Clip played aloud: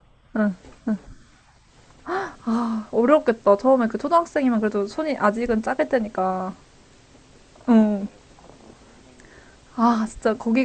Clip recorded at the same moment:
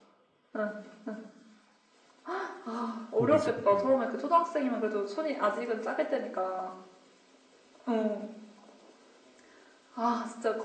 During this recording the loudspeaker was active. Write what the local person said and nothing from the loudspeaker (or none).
고비지, 고비.